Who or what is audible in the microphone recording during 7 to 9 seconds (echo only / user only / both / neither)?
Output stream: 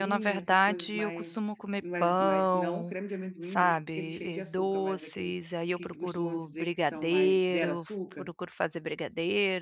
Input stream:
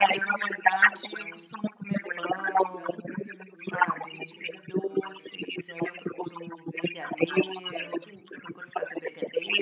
echo only